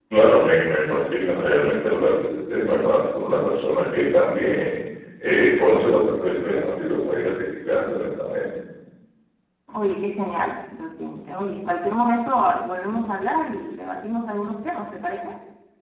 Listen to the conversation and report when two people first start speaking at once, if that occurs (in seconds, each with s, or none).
none